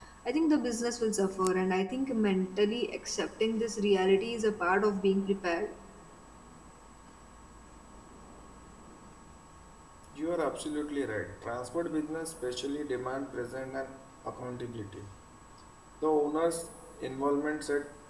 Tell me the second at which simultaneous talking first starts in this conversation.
none

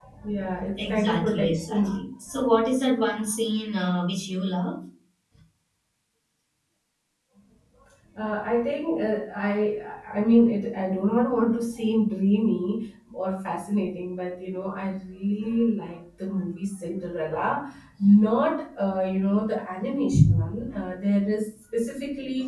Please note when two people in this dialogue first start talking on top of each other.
0.8 s

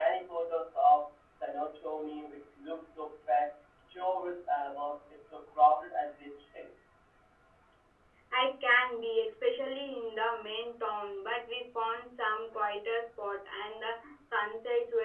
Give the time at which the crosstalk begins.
none

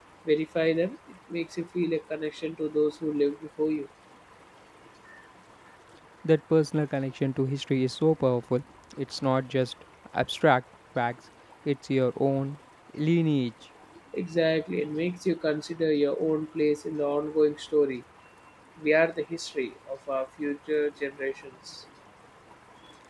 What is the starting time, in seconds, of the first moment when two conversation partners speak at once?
none

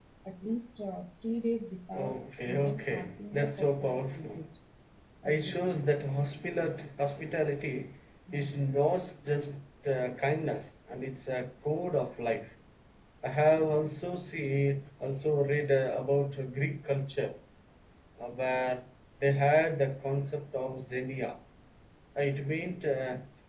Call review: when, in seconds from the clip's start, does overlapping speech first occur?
1.9 s

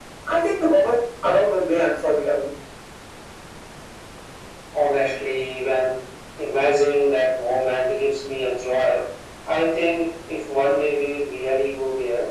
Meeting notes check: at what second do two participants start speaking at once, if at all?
none

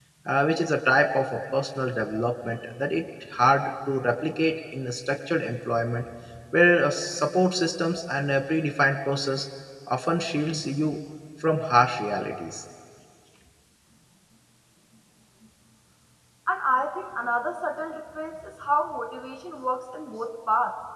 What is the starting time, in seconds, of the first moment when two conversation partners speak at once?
none

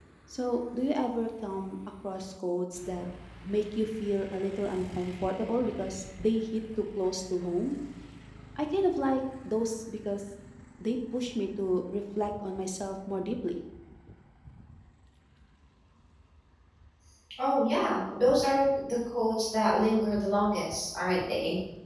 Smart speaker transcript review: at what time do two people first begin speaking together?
none

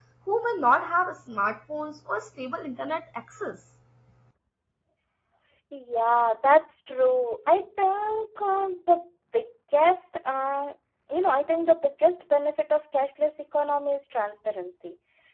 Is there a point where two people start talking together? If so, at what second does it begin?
none

